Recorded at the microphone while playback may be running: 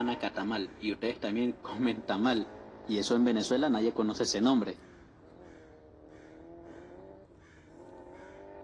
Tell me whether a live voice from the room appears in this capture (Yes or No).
No